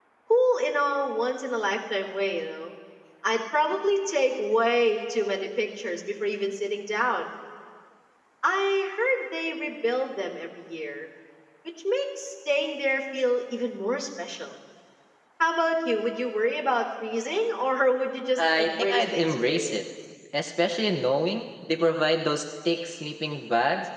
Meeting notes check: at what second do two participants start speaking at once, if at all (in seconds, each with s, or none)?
18.4 s